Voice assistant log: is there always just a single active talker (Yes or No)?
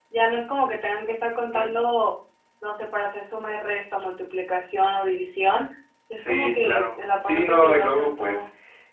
No